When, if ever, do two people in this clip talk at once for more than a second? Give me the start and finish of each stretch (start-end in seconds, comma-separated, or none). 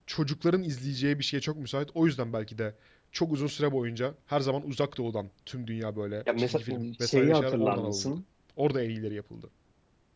6.4-8.1